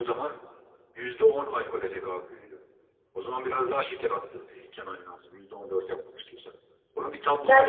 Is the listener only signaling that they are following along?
No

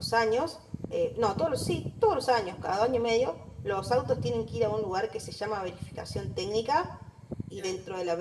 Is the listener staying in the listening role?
Yes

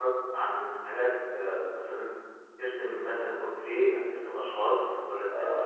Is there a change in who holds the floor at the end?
Yes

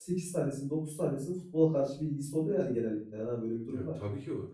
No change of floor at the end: No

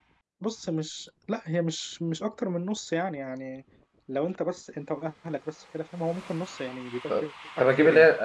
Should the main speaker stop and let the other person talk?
Yes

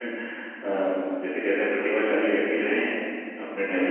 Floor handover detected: Yes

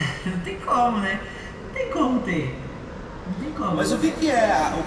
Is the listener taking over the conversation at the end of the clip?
Yes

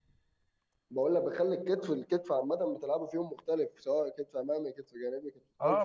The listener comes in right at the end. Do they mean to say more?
Yes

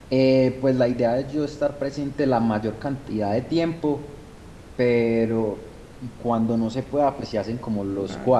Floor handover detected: No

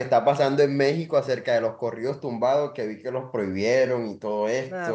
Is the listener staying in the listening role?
No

